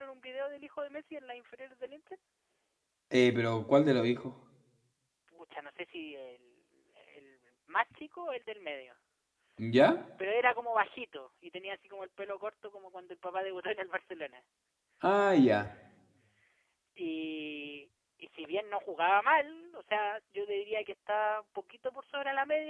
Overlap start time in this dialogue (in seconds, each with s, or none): none